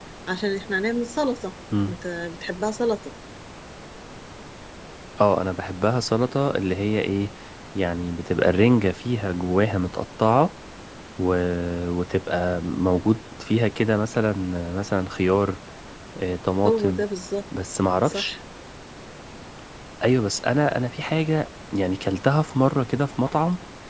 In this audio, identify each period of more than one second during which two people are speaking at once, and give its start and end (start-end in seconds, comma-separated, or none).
none